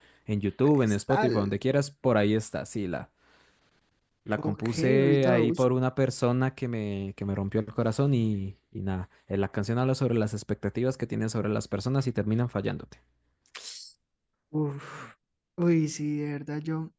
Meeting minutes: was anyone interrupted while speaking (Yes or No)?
Yes